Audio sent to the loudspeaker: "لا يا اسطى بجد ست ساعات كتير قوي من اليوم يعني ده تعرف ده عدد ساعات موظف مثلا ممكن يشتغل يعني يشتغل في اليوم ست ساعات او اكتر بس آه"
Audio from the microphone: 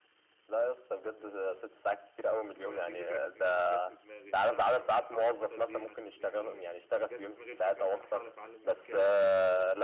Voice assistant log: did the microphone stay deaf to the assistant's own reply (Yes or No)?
No